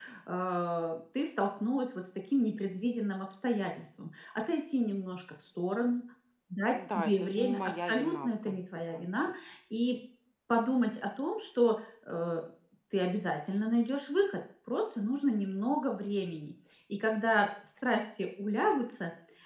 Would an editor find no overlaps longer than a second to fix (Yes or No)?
No